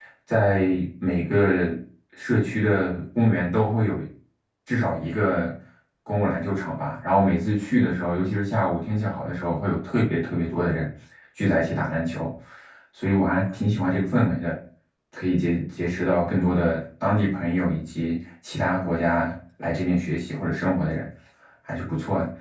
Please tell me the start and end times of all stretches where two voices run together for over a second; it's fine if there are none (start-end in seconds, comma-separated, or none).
none